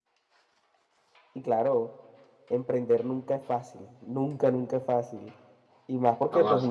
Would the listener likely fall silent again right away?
Yes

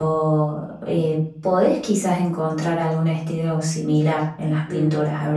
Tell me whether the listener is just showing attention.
Yes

